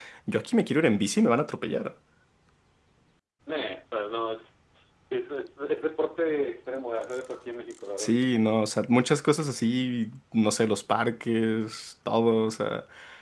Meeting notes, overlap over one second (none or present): none